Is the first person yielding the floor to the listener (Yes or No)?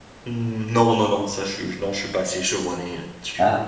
Yes